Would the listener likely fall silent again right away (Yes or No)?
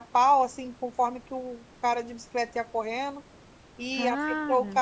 Yes